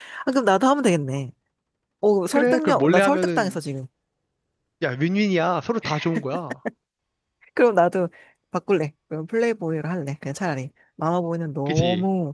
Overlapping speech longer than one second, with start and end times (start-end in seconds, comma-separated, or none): 2.3-3.6